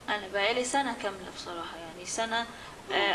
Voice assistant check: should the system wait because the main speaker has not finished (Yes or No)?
Yes